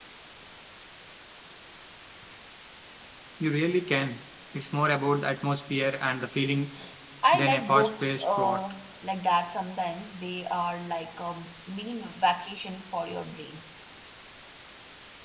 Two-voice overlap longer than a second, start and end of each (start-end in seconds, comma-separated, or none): 7.3-8.6